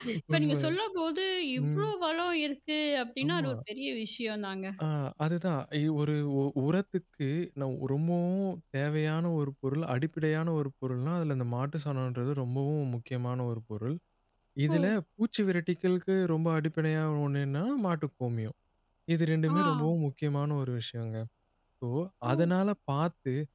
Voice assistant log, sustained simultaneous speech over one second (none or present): none